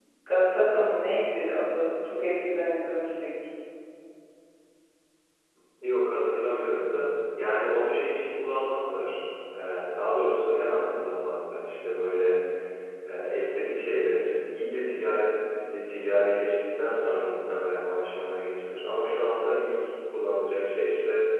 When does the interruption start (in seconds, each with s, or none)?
none